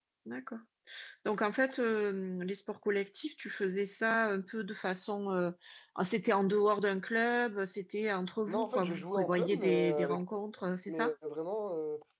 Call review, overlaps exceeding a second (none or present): present